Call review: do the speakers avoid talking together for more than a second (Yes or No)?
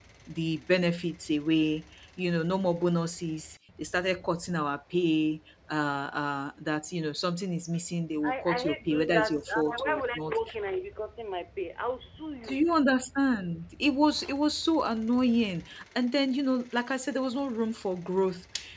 No